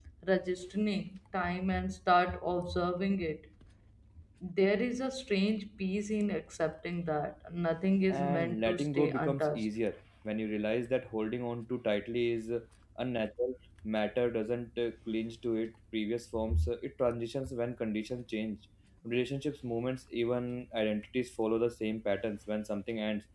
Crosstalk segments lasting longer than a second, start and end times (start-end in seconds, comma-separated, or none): 8.1-9.7